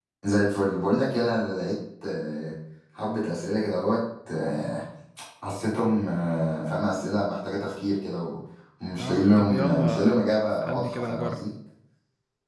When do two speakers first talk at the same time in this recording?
9 s

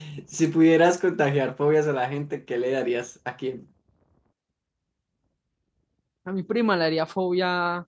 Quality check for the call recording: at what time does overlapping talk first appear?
none

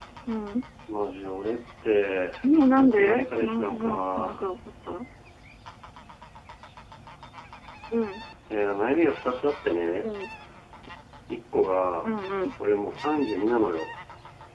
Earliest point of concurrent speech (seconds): 3 s

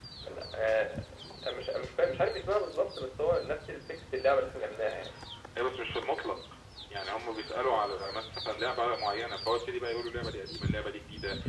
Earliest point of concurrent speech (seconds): none

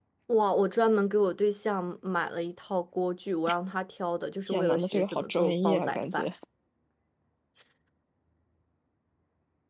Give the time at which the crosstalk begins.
4 s

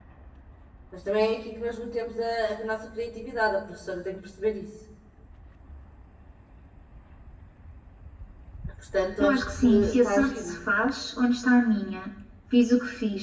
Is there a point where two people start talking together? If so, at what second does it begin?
9 s

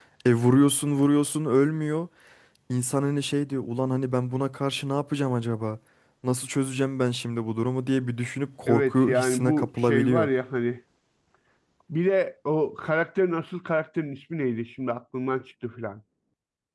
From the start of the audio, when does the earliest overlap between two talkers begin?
9 s

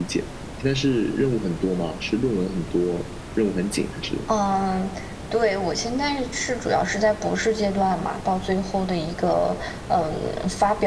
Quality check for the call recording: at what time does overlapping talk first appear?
none

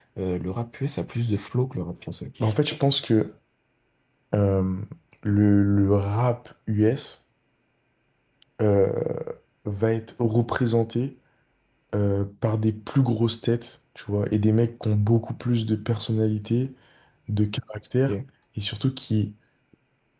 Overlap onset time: none

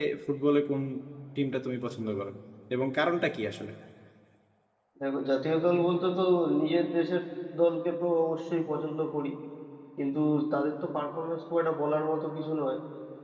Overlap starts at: none

